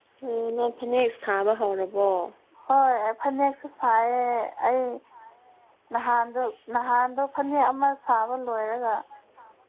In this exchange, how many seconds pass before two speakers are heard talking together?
none

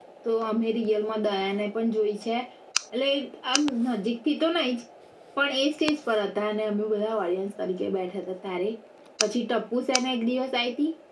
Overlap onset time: none

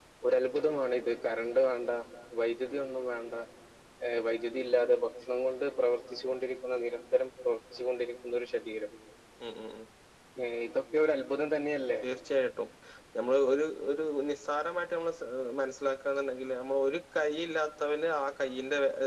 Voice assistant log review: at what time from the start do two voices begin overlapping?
none

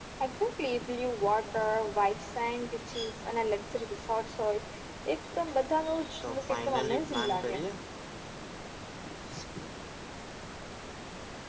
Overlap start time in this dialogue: 6.2 s

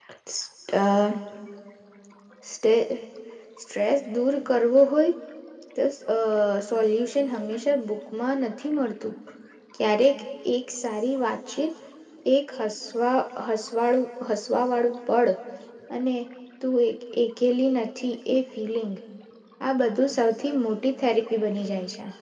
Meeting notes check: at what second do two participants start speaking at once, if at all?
none

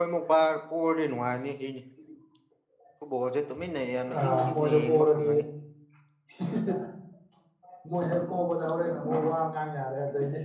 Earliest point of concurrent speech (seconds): 4.2 s

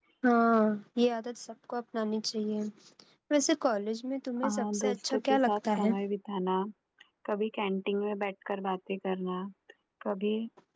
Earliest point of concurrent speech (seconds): 4.4 s

